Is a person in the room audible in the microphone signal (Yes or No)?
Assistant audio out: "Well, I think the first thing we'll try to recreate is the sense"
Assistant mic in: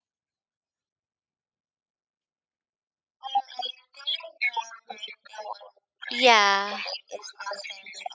Yes